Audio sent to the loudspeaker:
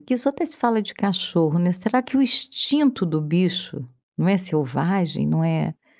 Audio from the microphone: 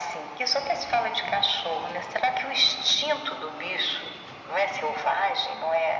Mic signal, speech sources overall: echo only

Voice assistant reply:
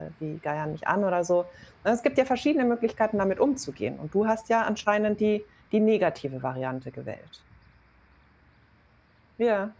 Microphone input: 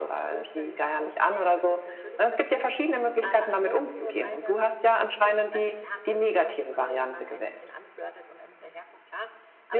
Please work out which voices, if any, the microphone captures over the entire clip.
both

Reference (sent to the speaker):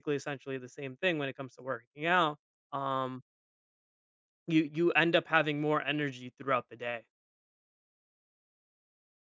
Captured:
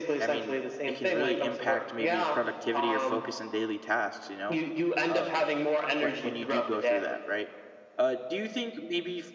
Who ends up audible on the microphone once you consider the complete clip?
both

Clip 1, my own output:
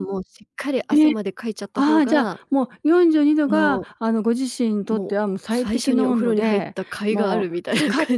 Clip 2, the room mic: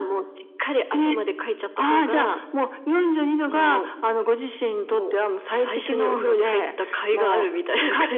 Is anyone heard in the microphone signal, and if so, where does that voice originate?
echo only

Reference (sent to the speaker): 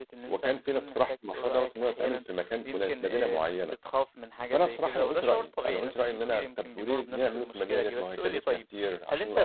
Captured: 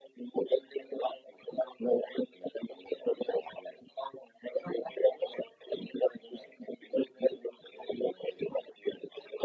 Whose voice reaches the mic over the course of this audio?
echo only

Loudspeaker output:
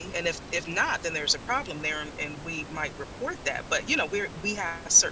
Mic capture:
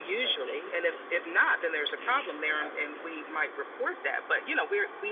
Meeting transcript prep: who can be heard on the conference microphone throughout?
both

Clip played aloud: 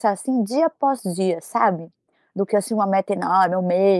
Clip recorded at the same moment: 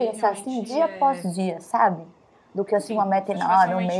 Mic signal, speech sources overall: both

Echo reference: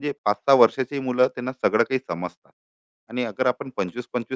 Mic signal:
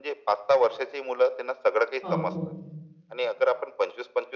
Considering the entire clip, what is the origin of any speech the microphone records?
both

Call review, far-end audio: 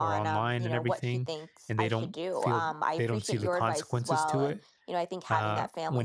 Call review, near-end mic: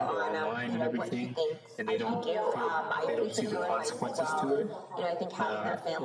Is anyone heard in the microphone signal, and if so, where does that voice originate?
both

